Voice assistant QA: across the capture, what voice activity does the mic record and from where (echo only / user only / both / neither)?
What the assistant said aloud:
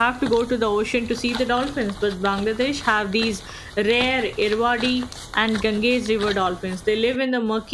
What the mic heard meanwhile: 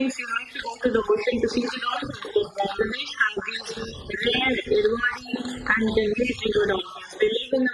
echo only